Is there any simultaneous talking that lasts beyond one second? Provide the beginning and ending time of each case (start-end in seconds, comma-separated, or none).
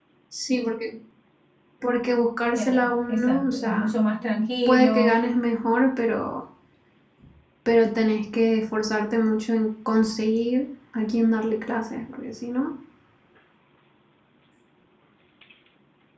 2.6-3.9